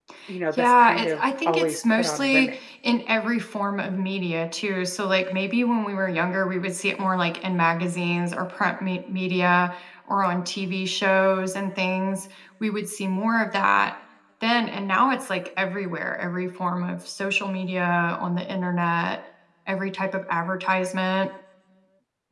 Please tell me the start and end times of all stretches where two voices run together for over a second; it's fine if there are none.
0.5-2.6

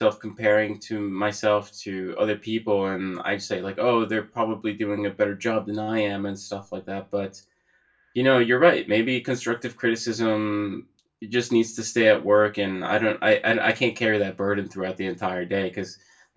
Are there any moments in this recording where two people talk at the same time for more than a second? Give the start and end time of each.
none

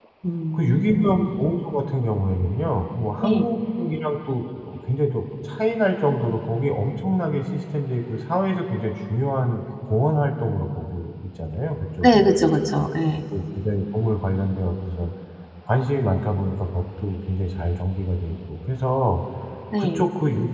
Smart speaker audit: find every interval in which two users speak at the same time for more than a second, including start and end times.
none

